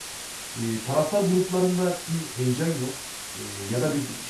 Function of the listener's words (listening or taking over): listening